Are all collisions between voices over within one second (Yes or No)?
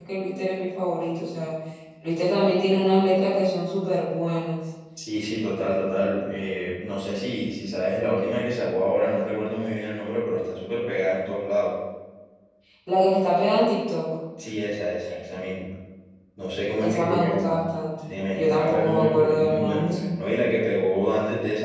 No